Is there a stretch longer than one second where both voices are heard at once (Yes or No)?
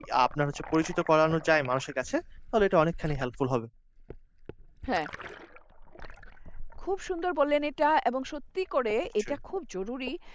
No